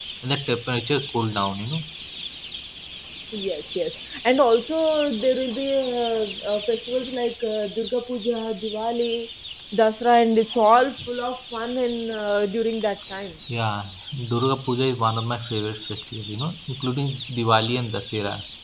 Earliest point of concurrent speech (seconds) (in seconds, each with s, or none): none